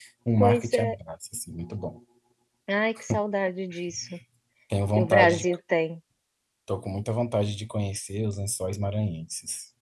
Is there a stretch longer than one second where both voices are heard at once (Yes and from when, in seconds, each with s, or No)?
No